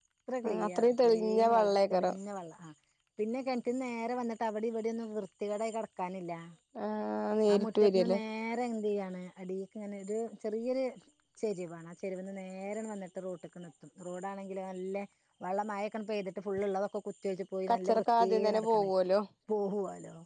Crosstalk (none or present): present